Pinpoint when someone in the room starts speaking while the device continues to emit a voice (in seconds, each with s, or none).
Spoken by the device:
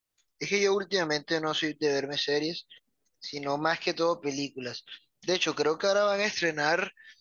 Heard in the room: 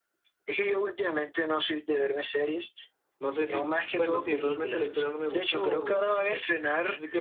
3.2 s